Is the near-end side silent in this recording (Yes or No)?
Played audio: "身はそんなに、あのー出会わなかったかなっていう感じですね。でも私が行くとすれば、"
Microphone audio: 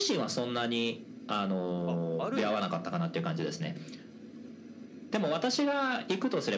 No